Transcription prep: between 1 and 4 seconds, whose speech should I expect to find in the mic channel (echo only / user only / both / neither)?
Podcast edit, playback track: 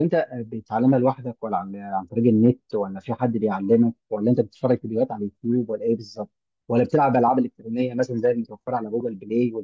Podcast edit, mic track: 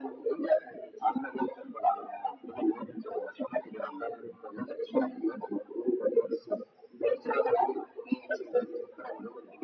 echo only